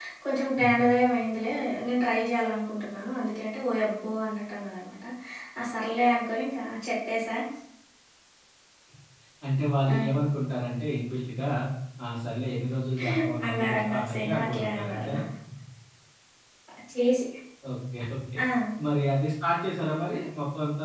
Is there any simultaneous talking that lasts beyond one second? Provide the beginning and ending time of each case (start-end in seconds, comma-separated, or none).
13.5-15.1